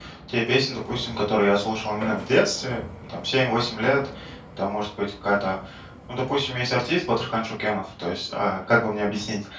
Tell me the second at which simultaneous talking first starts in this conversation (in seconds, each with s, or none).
none